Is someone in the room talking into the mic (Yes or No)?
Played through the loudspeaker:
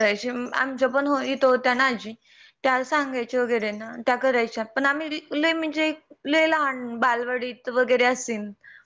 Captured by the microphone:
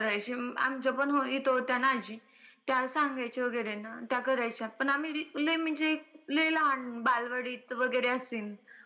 No